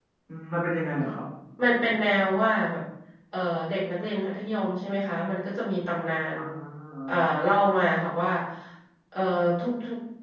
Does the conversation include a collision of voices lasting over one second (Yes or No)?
No